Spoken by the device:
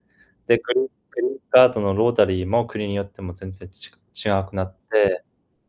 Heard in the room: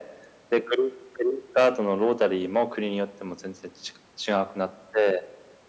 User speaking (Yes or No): No